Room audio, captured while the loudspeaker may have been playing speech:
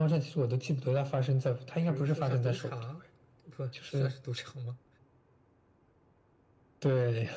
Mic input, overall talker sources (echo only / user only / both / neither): both